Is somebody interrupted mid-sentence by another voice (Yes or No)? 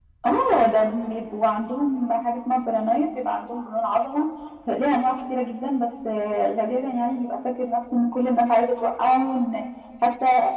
No